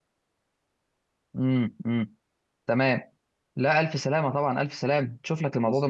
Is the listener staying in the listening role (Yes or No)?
Yes